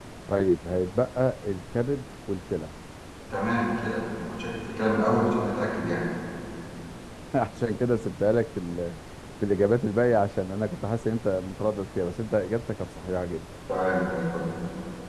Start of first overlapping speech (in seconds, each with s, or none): none